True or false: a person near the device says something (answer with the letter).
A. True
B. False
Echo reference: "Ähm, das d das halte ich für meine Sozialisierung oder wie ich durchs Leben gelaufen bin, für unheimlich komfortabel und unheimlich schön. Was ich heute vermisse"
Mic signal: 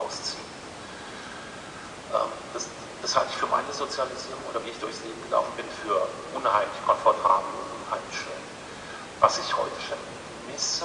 B